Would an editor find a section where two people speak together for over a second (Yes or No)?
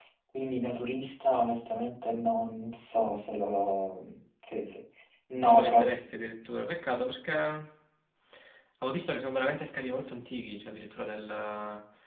No